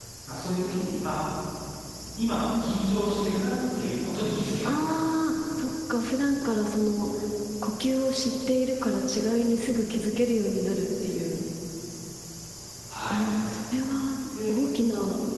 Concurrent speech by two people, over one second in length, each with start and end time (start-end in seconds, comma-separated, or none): none